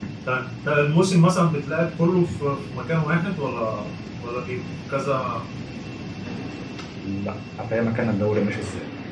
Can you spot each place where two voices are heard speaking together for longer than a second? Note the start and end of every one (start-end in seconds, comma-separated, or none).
none